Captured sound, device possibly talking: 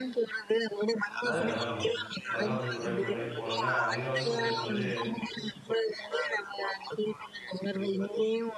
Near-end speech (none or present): present